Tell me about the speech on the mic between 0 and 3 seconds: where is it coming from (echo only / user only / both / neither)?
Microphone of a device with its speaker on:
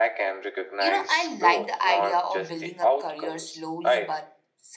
both